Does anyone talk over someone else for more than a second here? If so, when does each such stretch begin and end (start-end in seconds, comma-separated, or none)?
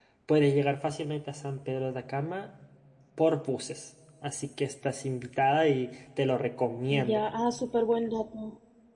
none